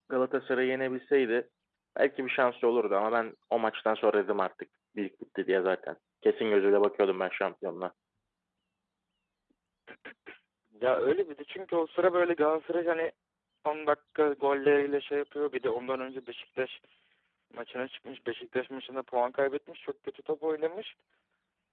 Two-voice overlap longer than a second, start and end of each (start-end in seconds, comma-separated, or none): none